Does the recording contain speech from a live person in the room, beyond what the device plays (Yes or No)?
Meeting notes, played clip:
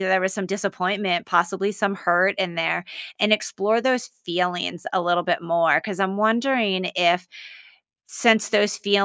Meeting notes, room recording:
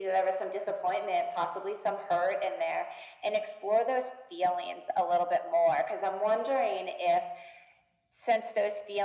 No